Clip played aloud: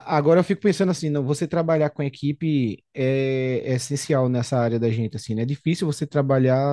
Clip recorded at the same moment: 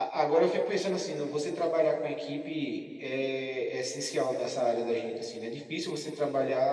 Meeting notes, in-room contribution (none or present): none